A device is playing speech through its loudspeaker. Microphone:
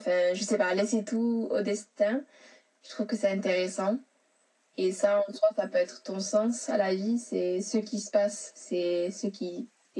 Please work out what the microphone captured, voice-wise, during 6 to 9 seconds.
echo only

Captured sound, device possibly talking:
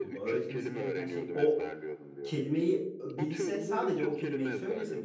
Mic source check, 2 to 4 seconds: both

